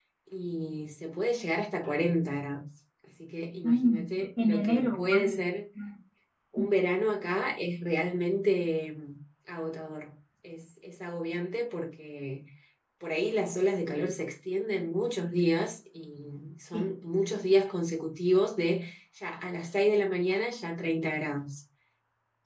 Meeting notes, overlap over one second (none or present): present